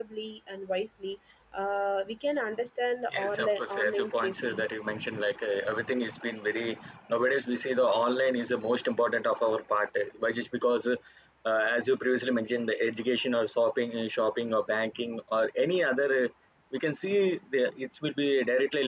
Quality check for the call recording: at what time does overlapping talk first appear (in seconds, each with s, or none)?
3.1 s